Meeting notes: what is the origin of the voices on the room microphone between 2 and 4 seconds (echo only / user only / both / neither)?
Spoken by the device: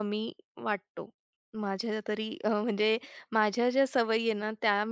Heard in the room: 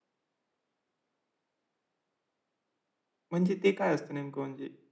user only